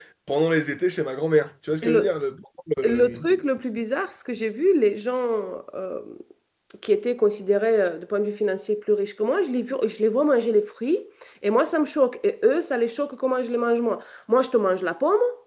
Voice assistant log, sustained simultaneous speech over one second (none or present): none